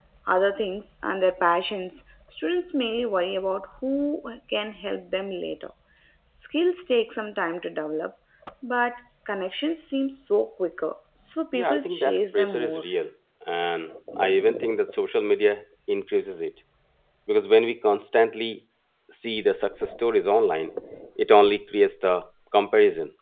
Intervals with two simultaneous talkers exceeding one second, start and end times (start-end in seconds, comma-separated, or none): 11.5-12.8